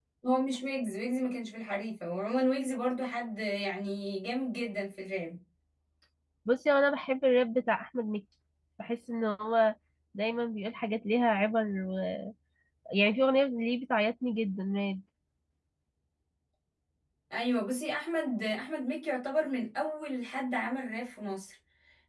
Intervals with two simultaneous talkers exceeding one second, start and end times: none

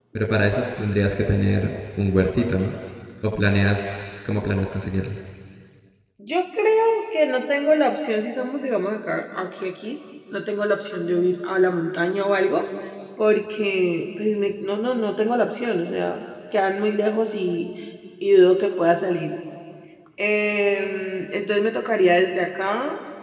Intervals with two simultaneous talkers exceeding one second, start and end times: none

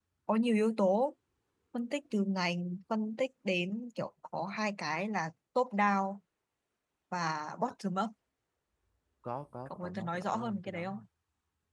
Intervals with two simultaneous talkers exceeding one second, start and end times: 9.7-10.9

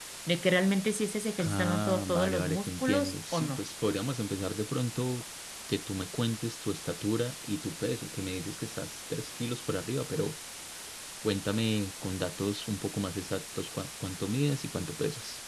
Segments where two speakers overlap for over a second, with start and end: 1.4-3.6

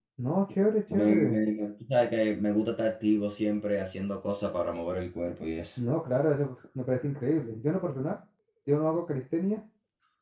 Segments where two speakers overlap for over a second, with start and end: none

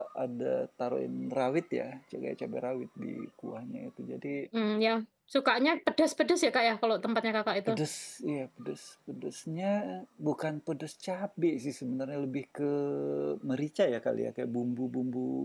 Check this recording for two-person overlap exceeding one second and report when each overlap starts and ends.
none

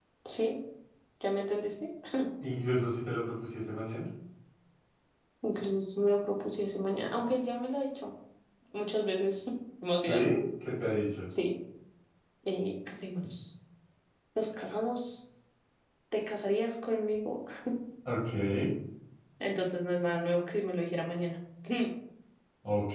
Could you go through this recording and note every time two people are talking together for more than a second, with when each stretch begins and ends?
none

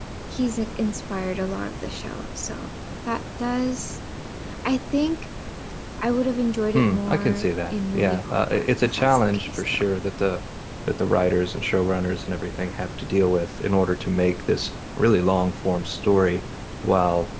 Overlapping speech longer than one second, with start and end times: 6.7-9.8

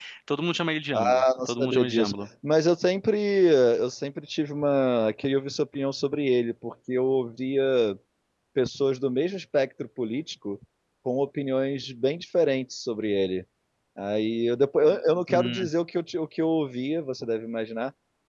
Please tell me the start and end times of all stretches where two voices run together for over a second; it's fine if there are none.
0.9-2.1

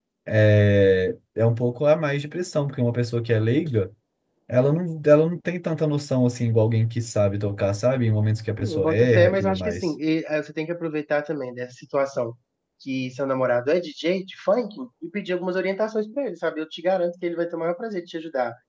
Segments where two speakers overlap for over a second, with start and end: 8.6-9.9

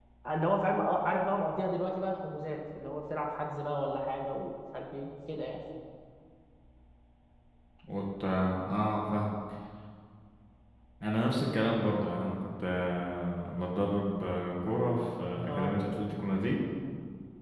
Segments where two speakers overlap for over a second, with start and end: none

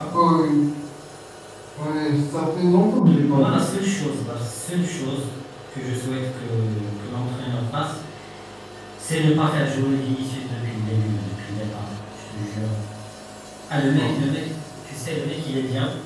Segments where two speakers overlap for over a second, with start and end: none

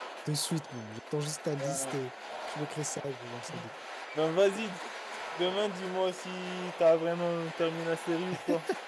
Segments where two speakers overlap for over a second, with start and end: none

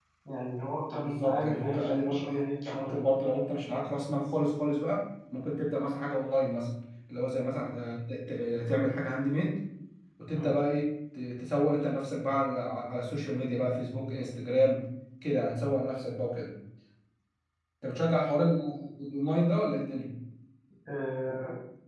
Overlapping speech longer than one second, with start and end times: 0.9-3.1

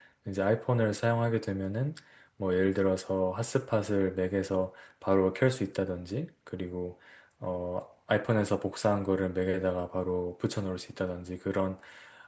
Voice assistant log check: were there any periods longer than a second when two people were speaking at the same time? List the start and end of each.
none

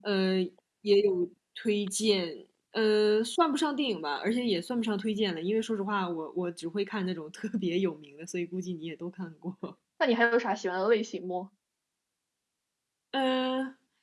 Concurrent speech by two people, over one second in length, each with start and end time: none

